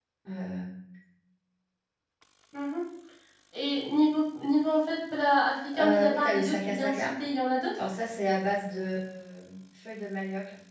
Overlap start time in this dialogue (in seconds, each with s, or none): 5.7 s